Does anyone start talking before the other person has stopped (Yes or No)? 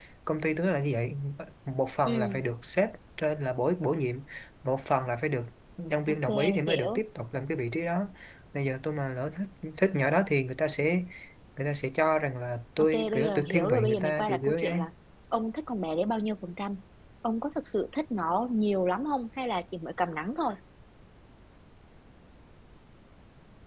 Yes